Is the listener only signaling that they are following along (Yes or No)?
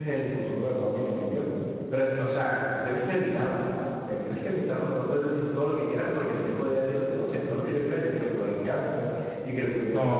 No